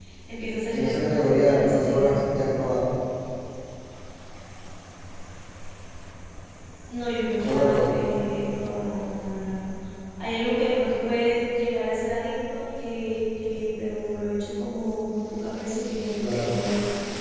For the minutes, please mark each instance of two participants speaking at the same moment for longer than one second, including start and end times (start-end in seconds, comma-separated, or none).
0.7-2.1